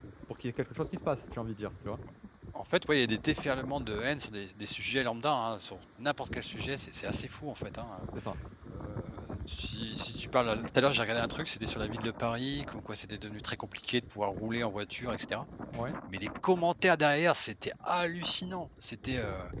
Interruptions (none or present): none